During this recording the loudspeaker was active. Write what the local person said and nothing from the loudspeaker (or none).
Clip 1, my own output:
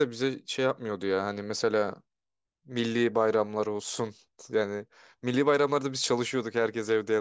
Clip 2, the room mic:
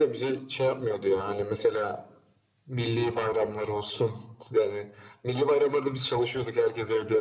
none